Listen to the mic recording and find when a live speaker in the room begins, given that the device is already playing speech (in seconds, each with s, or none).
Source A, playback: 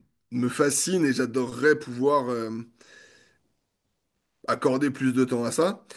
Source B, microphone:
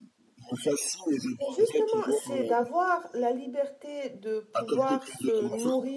1.4 s